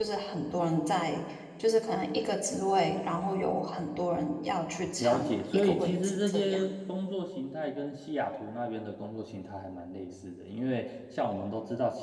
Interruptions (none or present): present